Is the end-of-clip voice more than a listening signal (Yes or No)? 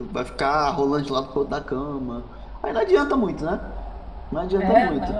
Yes